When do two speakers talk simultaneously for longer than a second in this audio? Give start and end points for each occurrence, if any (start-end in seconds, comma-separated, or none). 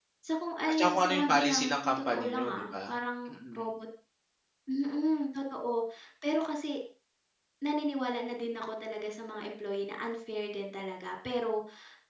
0.7-2.9